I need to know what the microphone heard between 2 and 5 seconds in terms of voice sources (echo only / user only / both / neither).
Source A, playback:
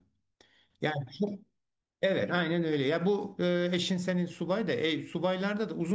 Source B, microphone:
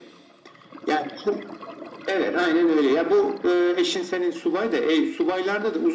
echo only